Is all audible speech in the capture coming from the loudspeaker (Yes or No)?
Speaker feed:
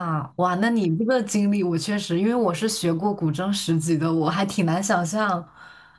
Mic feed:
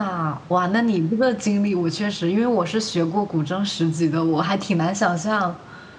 Yes